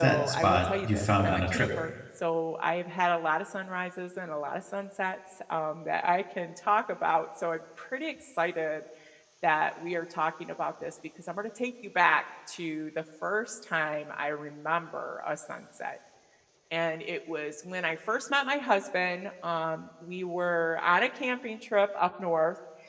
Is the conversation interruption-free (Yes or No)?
No